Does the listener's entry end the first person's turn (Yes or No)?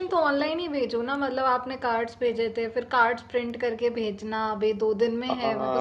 Yes